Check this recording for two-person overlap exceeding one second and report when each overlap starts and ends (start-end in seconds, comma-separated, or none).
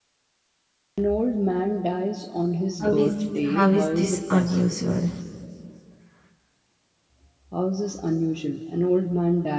3.5-4.8